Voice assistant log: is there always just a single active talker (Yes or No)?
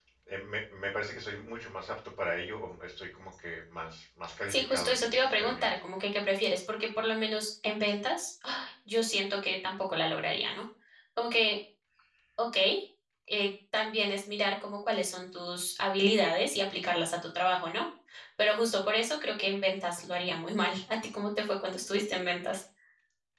No